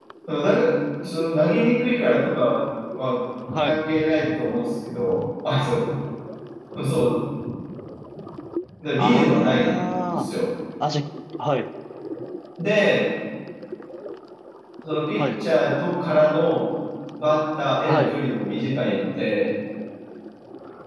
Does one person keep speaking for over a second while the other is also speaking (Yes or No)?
Yes